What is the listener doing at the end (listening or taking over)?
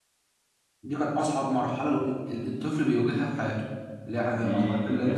taking over